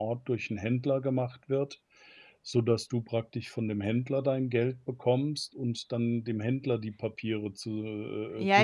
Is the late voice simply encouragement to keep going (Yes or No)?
No